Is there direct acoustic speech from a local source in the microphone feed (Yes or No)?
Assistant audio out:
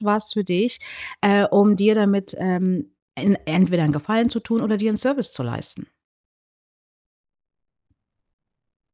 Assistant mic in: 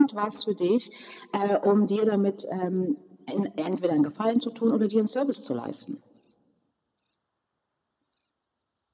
No